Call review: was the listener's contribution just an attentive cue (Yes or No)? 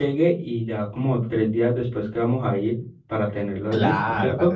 No